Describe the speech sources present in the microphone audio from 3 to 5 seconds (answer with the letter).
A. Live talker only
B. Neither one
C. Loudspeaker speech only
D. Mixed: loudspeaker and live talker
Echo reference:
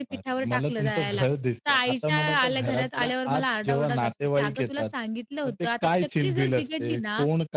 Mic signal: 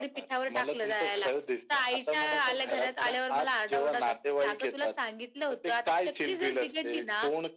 C